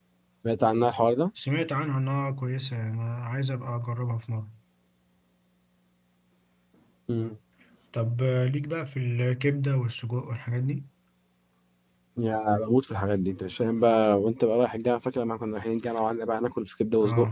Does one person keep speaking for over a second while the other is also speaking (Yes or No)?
No